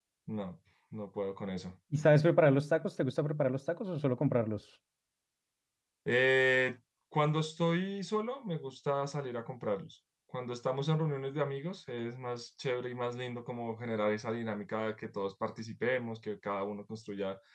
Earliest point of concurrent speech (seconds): none

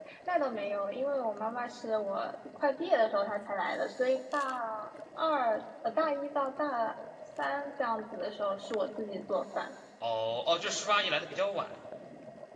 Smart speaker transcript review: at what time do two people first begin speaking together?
none

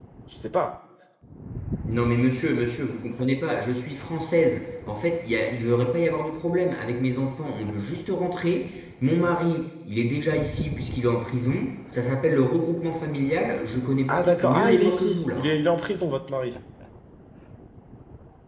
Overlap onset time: 14 s

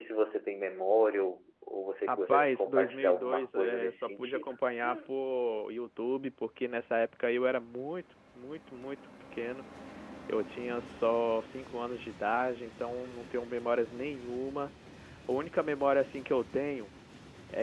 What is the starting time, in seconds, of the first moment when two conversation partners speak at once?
2 s

